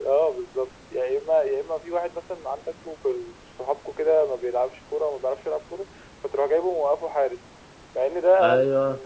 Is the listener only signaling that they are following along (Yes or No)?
Yes